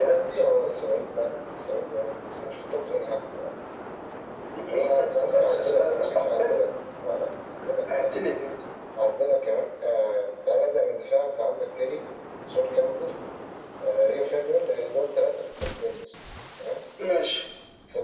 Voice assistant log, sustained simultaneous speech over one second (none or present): present